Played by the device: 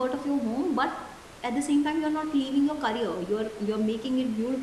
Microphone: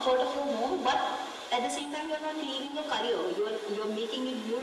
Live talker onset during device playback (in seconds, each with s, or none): none